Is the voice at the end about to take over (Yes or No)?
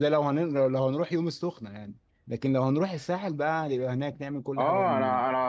Yes